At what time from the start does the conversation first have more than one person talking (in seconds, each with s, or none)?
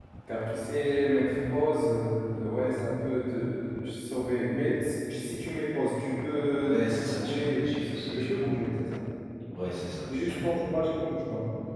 6.6 s